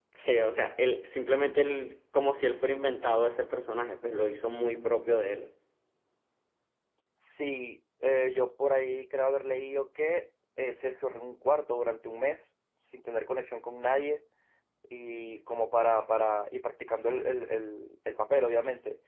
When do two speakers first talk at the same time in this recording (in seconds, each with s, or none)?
none